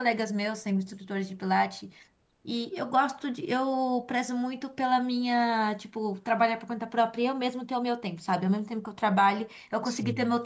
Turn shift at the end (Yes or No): No